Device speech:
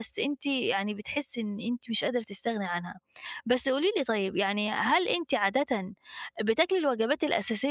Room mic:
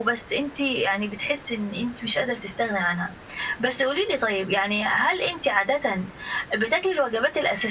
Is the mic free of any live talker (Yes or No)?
Yes